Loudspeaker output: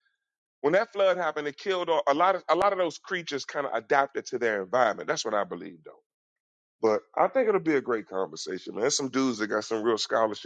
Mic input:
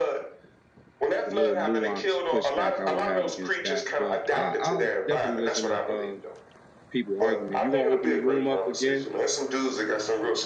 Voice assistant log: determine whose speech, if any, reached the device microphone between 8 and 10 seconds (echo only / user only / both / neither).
both